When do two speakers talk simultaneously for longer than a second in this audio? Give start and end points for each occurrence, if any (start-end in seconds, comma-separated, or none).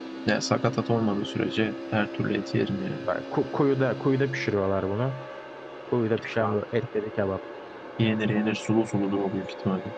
none